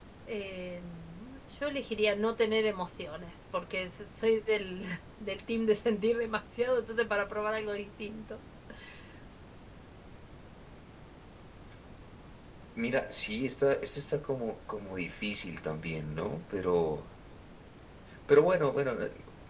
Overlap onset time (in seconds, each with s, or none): none